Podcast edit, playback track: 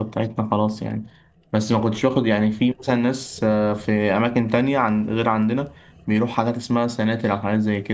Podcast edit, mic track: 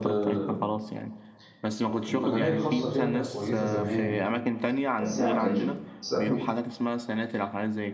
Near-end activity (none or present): present